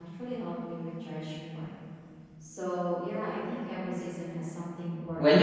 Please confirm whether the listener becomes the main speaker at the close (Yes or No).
Yes